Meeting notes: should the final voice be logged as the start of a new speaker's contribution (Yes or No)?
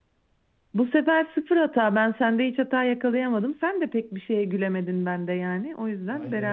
Yes